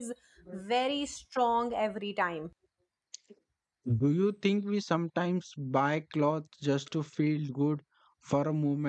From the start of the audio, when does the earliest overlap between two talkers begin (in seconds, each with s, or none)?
none